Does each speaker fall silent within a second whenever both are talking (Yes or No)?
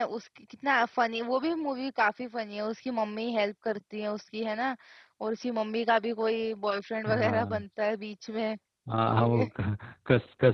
Yes